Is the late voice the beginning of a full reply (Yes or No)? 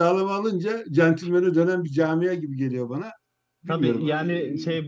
Yes